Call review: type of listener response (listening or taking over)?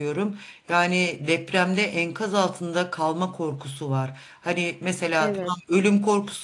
listening